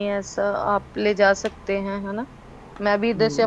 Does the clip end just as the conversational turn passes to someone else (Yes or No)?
Yes